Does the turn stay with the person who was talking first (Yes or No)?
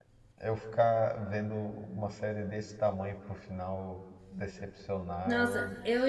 No